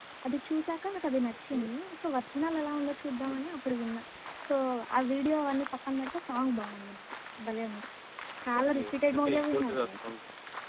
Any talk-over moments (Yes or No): Yes